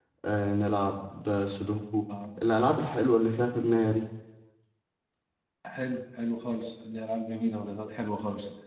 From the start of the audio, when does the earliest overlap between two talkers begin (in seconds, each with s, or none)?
none